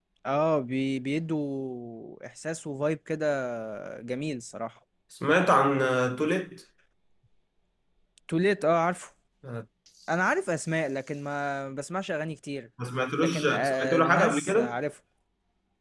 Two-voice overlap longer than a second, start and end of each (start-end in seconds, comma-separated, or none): 13.2-14.8